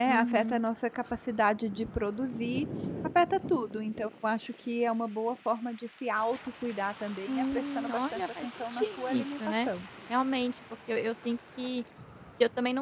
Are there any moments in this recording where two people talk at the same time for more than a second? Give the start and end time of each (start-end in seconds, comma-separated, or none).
7.3-9.7